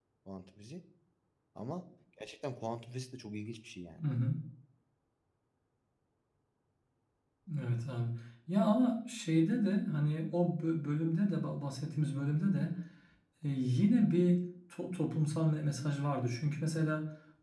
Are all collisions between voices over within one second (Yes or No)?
Yes